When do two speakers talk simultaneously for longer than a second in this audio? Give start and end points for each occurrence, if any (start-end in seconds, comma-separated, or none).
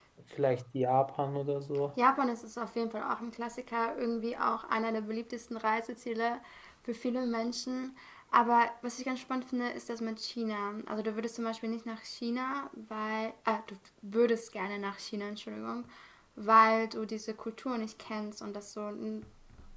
none